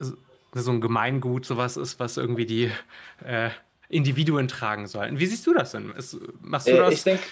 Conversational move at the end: taking over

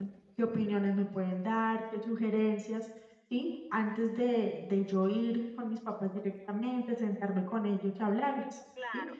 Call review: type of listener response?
taking over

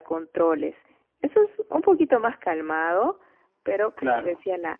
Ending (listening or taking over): listening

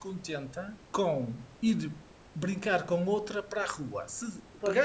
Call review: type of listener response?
listening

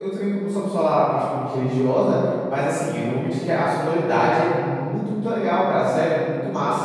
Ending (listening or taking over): listening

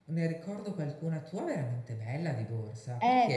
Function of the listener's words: taking over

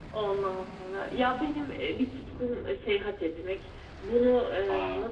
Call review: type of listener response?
listening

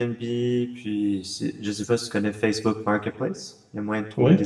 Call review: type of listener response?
listening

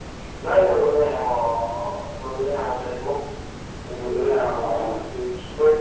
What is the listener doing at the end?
listening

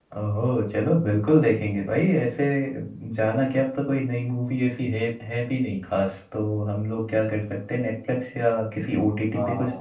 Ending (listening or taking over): taking over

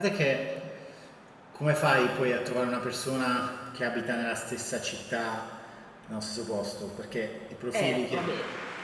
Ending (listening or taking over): taking over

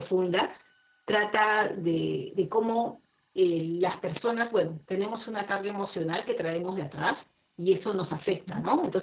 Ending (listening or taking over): listening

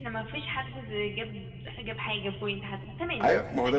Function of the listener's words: taking over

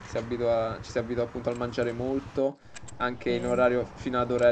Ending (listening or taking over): listening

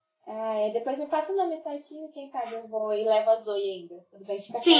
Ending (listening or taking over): taking over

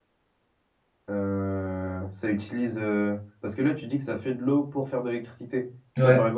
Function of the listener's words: listening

